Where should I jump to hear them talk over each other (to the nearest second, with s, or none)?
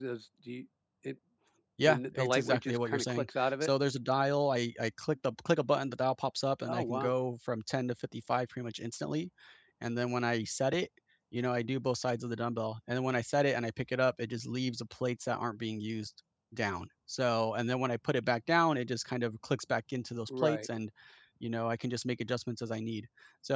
2 s